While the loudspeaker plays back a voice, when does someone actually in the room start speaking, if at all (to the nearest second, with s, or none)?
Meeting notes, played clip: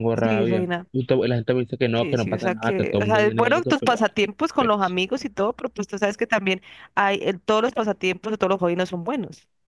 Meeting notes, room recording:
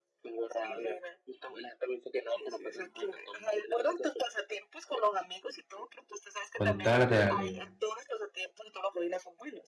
7 s